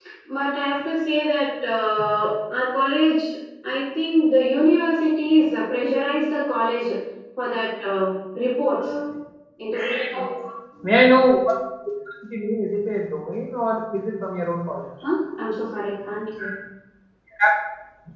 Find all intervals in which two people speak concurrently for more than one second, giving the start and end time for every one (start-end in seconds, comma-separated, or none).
none